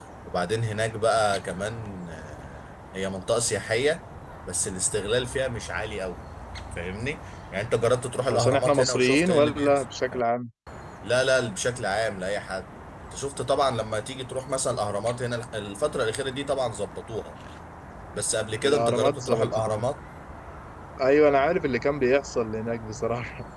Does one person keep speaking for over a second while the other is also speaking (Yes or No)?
Yes